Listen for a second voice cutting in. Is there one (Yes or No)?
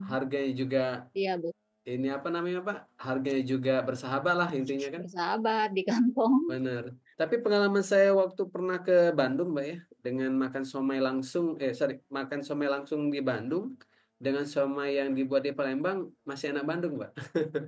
No